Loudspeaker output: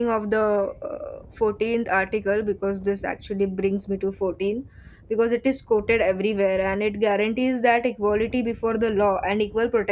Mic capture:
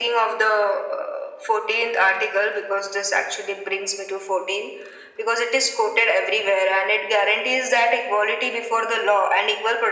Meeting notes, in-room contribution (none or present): none